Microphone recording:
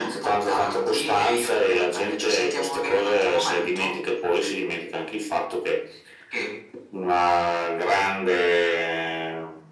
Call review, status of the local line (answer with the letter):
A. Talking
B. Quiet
B